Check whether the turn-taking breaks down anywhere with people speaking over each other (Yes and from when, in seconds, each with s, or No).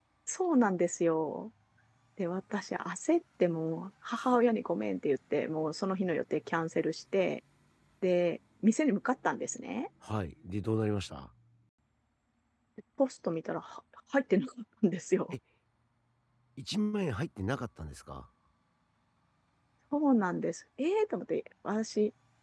No